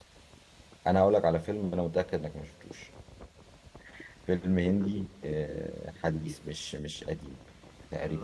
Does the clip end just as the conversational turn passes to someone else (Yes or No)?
No